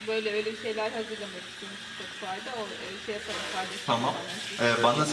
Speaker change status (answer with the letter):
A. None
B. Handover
B